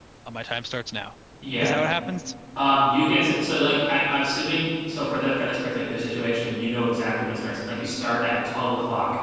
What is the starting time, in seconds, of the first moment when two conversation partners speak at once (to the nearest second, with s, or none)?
none